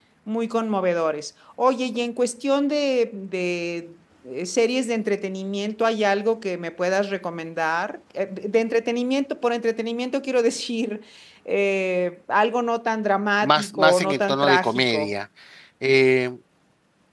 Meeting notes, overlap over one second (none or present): present